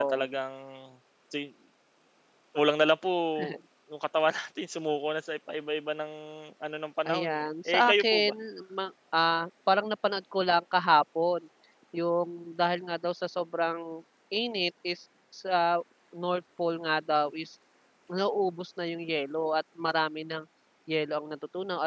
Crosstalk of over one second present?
Yes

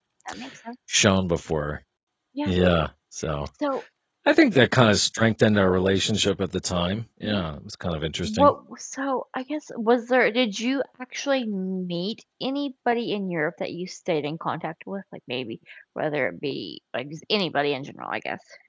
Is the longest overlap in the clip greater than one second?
No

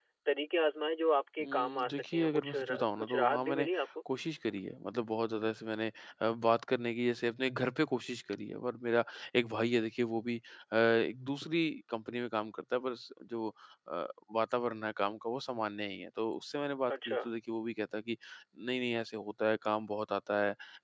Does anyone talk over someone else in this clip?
Yes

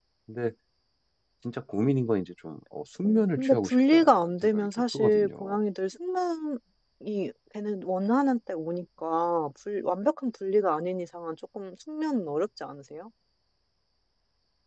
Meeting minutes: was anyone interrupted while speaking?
Yes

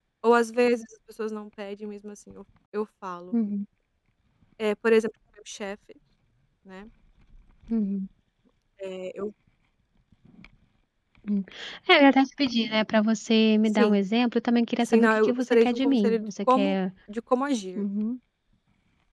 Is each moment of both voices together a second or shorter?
No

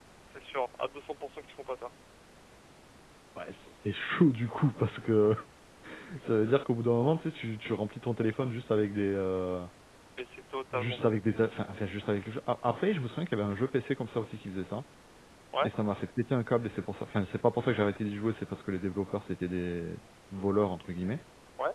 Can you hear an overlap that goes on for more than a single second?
No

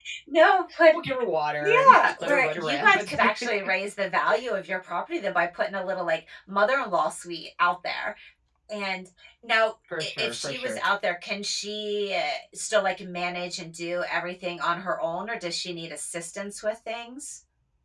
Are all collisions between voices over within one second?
No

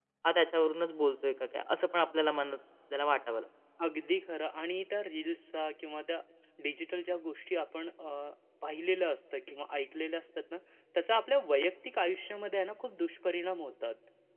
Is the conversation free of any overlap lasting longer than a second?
Yes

